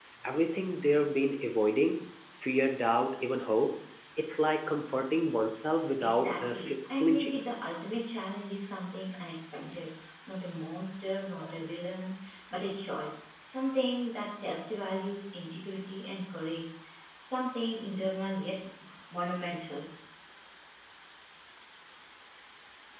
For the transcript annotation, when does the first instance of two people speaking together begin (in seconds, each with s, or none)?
6.0 s